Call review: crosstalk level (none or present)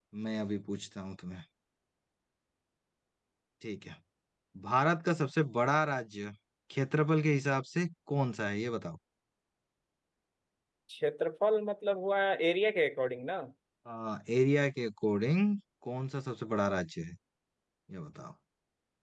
none